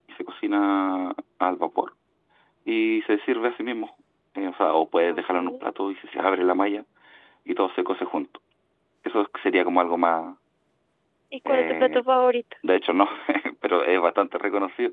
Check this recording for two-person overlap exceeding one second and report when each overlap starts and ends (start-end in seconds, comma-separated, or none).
none